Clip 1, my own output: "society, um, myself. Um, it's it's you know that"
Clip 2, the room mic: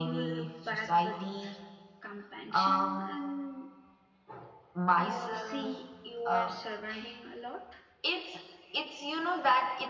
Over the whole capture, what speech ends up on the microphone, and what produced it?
both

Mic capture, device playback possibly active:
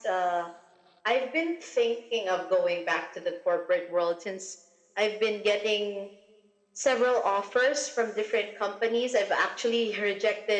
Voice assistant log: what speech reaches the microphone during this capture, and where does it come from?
echo only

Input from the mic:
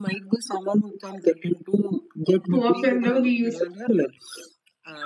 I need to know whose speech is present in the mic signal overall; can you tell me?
both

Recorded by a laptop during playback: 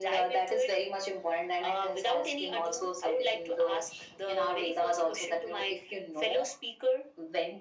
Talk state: echo only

